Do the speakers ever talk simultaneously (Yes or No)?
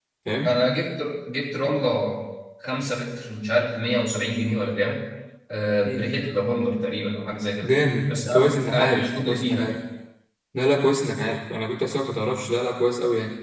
Yes